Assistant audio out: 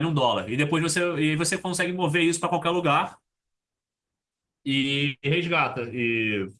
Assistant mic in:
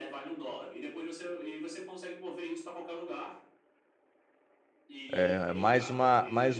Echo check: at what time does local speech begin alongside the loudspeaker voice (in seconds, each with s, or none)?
5.1 s